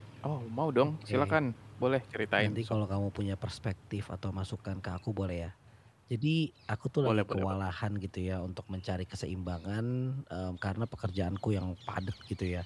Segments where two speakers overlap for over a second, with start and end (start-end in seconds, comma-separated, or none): none